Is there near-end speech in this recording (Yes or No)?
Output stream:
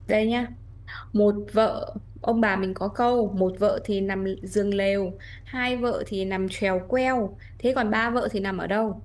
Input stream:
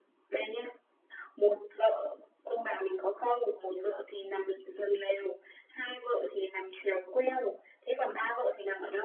No